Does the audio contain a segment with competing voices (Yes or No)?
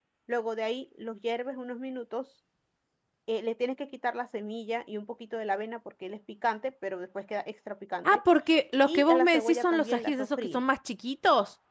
Yes